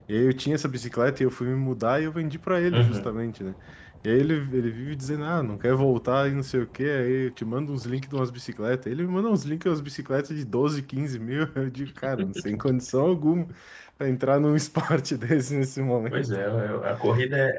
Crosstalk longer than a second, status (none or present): none